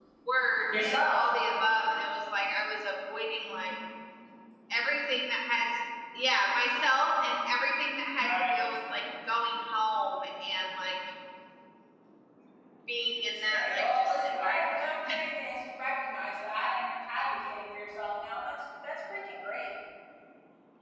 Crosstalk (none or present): present